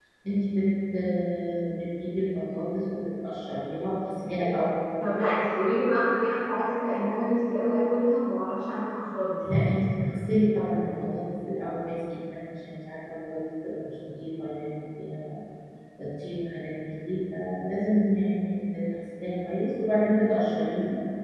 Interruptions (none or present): none